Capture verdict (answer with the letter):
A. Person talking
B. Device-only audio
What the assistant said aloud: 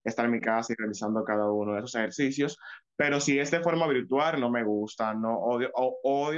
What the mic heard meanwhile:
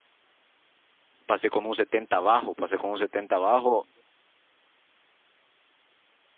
A